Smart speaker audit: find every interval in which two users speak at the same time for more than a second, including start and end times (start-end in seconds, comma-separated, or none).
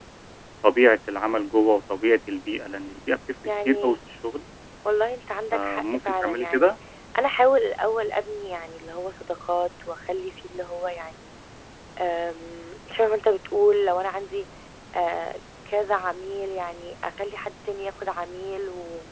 5.5-6.8